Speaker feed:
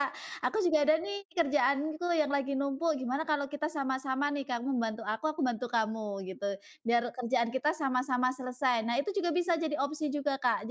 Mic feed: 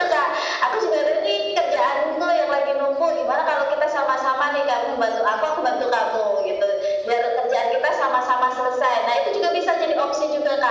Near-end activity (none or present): none